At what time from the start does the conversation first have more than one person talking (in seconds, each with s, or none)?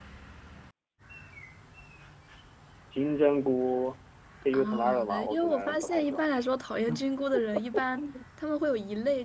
4.5 s